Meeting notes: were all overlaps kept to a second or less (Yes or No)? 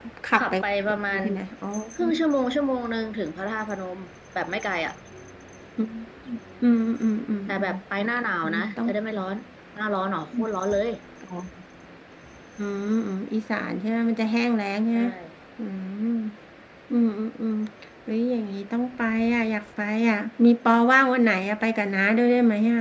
Yes